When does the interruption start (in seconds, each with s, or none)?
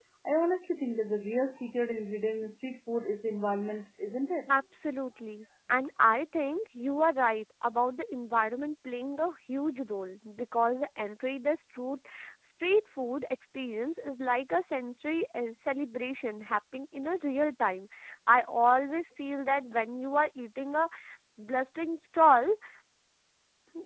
none